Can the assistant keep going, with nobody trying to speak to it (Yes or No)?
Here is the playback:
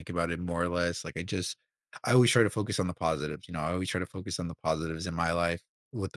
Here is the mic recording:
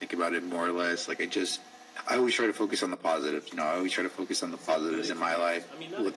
No